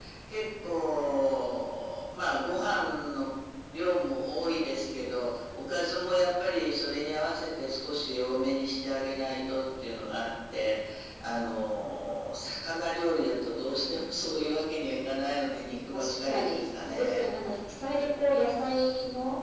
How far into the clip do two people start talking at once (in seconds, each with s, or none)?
15.9 s